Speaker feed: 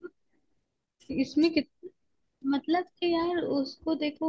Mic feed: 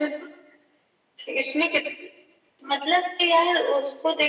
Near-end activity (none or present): none